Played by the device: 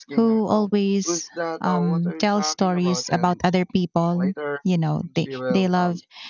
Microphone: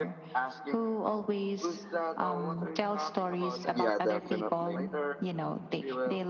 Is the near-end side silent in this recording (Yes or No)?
No